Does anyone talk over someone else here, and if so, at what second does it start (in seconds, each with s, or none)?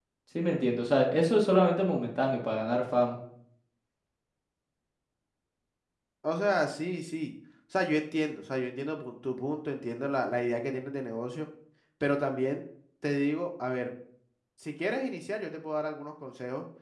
none